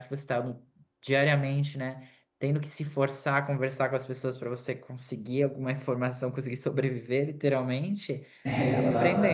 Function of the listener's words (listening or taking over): taking over